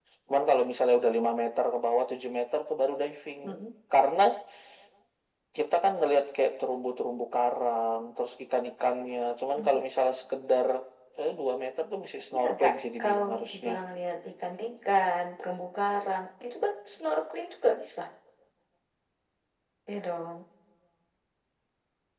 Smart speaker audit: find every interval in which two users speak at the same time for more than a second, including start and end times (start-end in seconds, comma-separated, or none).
12.3-13.7